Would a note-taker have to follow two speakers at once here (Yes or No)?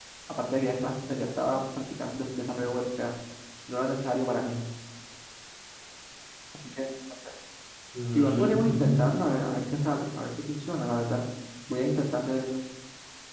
Yes